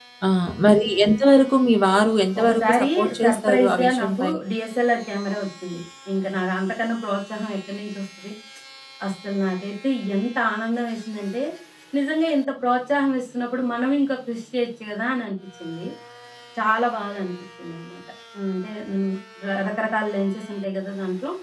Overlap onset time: 2.4 s

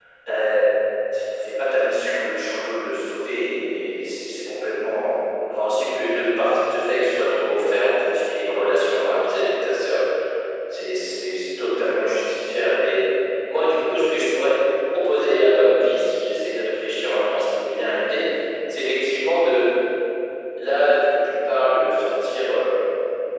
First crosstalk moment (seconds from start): none

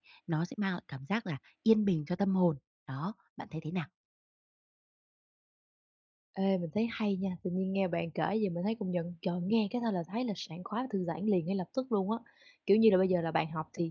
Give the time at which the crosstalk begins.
none

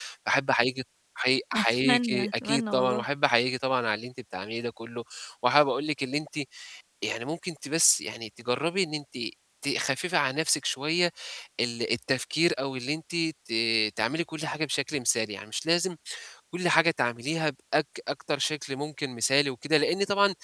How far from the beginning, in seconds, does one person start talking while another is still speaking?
1.5 s

